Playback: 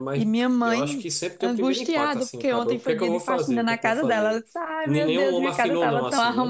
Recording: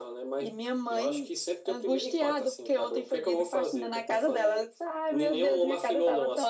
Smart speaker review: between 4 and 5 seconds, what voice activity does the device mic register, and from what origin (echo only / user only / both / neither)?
echo only